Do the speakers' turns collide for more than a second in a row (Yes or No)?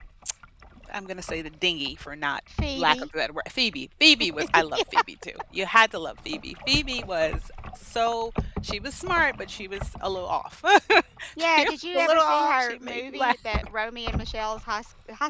Yes